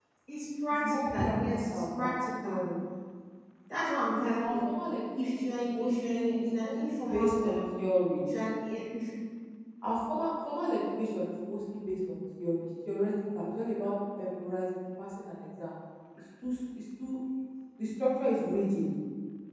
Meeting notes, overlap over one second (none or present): present